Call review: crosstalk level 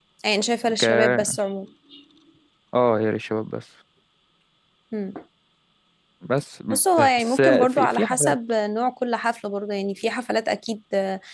present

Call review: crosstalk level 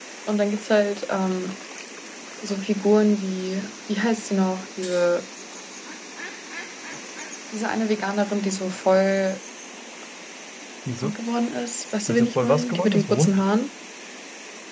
present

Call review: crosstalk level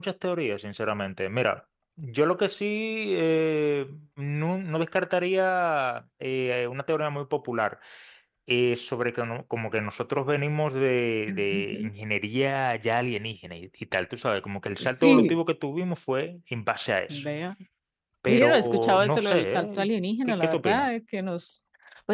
present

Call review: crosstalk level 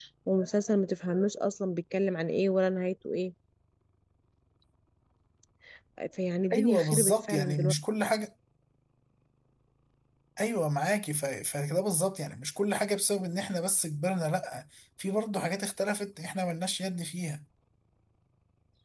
present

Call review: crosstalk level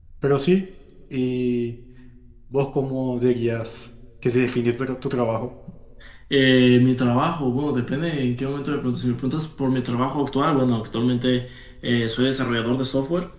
none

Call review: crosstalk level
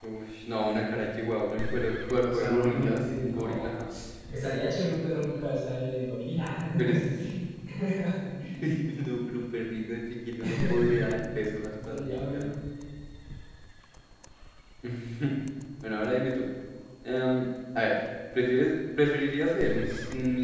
present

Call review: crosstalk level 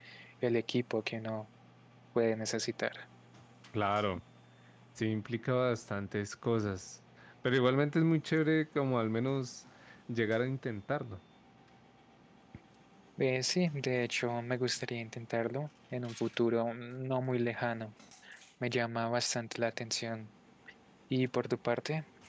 none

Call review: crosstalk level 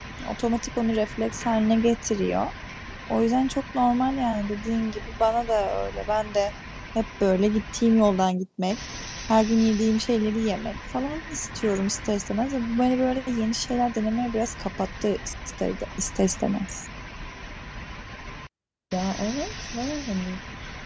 none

